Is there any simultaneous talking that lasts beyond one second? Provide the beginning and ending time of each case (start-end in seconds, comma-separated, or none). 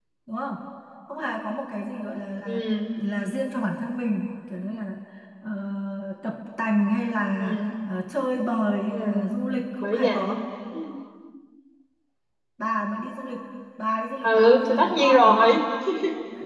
14.2-15.6